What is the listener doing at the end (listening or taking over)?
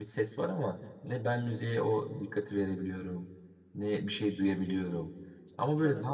listening